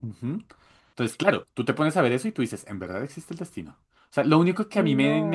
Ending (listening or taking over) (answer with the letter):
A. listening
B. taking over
A